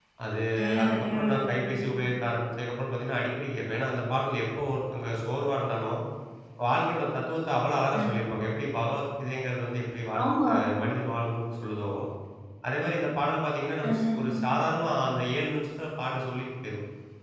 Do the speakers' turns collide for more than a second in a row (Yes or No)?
Yes